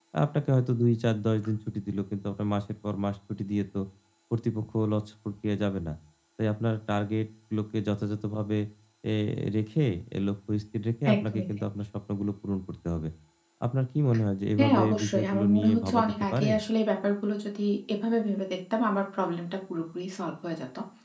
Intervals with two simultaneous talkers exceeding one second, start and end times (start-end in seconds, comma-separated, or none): 14.6-16.5